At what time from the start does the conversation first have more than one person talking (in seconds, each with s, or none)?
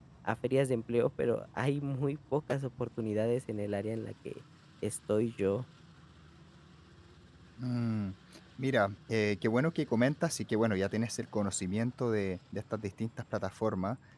none